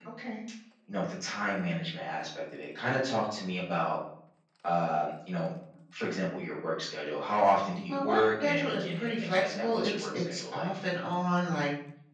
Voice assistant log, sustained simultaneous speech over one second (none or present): present